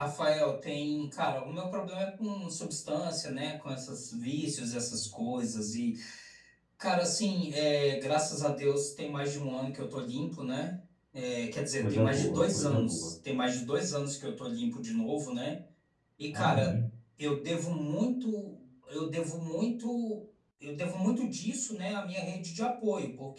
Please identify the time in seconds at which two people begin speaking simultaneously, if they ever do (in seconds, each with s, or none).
11.8 s